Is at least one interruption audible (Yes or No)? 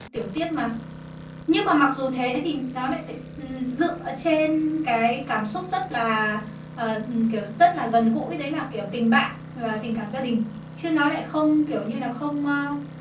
No